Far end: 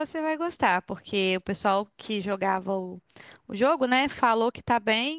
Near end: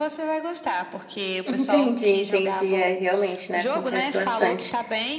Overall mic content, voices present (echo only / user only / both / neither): both